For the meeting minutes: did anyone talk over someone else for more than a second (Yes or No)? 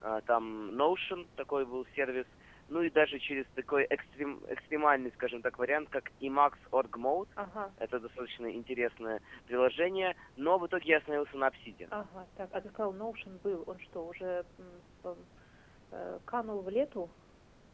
No